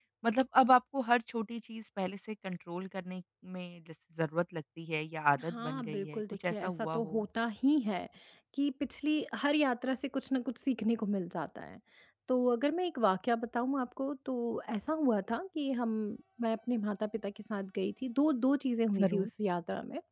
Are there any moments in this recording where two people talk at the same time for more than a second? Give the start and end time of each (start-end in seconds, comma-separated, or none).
5.4-7.2